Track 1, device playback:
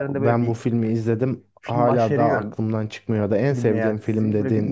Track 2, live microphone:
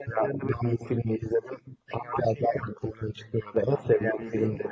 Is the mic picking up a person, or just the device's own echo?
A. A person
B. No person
A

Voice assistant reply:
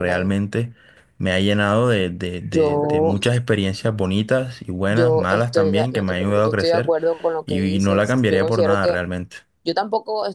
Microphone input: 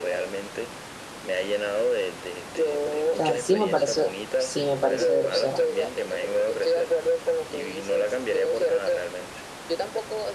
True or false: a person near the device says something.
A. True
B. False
A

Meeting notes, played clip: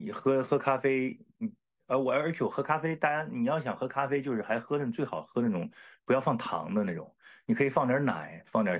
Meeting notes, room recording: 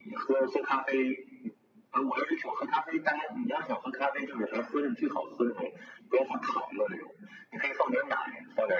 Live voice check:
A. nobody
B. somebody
A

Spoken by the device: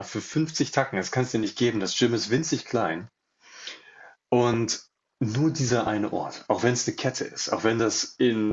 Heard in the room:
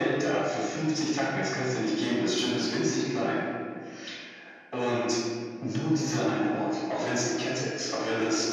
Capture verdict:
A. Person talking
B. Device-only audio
B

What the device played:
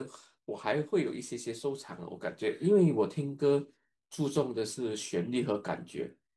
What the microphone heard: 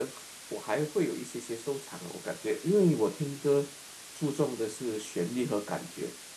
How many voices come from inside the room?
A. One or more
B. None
B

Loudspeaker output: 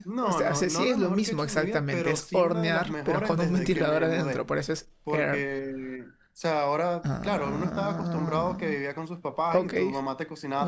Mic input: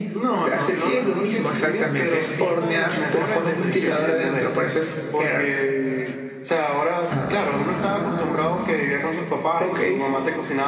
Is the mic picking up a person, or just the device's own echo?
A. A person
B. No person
B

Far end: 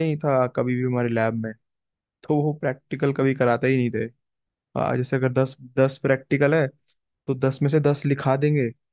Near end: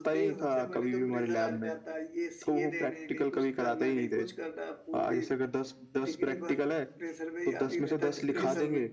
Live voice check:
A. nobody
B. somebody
B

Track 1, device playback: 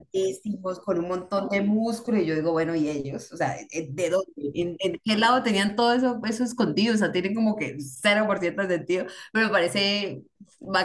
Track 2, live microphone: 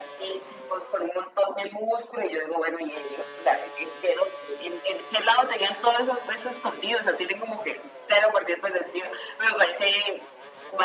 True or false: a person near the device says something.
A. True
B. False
B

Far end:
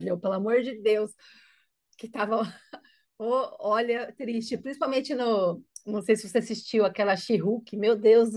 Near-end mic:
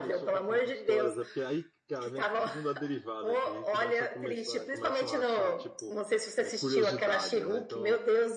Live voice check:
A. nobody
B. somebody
B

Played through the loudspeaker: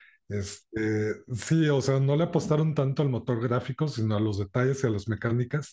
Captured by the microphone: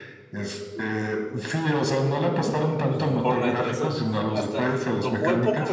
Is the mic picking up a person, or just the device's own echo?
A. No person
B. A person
B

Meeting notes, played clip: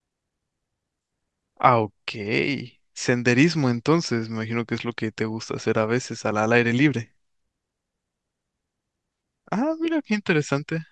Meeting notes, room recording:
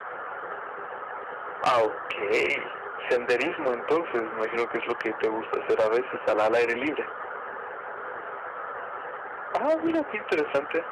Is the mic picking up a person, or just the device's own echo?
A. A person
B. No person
B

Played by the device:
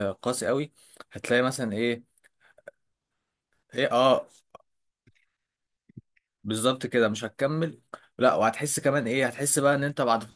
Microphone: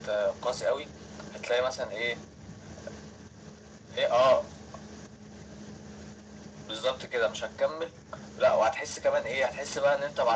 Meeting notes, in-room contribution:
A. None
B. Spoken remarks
A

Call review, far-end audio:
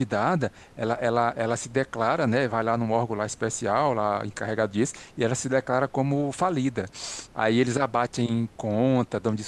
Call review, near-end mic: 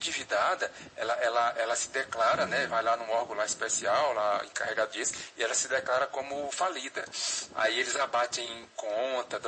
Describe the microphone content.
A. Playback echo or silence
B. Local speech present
B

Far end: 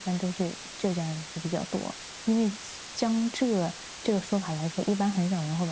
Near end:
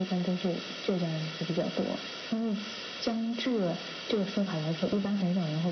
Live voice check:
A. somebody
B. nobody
B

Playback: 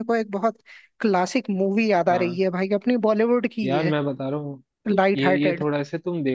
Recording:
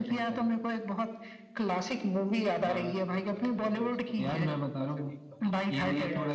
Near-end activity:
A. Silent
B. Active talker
B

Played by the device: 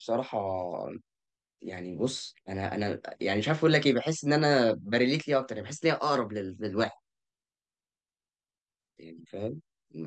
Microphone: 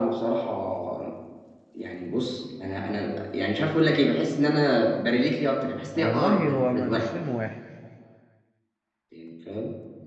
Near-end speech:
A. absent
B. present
B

